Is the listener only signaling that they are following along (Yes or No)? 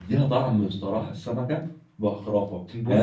Yes